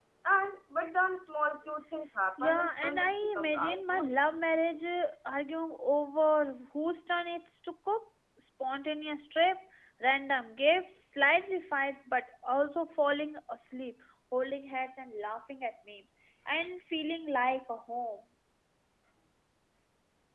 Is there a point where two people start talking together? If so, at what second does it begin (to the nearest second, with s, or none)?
2 s